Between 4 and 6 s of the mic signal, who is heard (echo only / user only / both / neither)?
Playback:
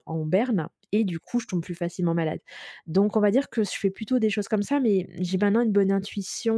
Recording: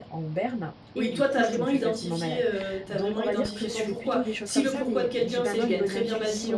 both